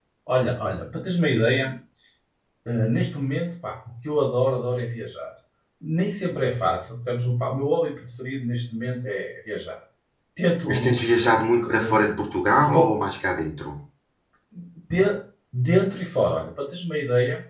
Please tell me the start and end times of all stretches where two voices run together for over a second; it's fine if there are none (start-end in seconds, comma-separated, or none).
none